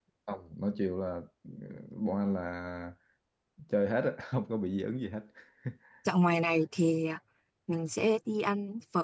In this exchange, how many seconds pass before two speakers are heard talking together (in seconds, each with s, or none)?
none